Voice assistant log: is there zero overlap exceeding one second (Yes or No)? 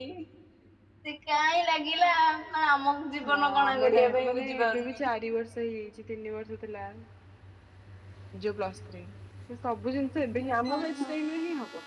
No